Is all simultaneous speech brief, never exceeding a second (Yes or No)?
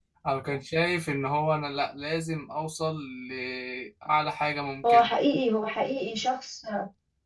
Yes